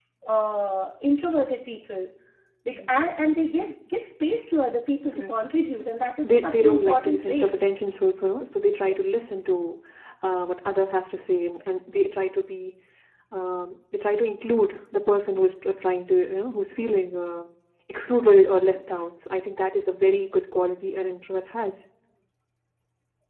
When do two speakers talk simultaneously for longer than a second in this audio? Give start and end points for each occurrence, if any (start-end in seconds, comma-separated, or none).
6.2-7.5